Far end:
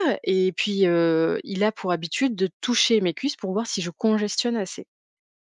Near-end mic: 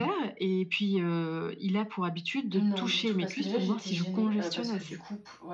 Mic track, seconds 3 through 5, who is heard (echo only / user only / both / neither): both